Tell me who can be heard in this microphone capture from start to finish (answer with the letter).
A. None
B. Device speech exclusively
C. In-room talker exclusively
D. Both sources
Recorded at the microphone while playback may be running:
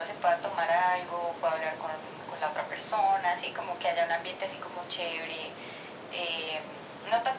B